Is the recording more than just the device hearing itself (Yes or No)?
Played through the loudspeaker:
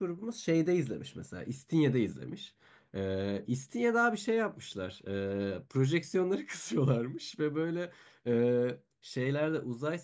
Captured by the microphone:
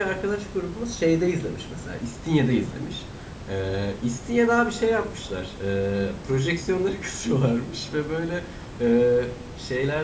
No